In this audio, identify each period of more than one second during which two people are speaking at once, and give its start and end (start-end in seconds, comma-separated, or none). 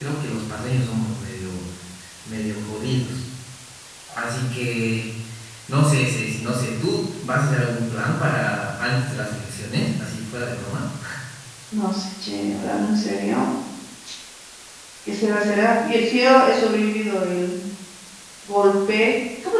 none